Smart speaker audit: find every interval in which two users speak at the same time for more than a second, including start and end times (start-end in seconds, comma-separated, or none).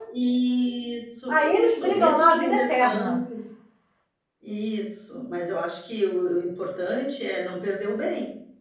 1.3-3.2